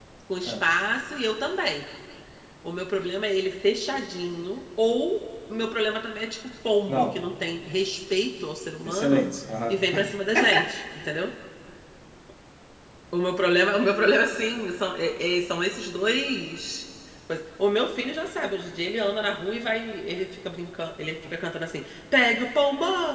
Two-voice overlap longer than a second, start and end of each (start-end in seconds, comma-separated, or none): none